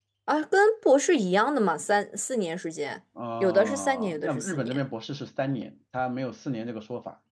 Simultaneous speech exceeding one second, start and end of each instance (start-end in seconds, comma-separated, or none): 3.4-4.8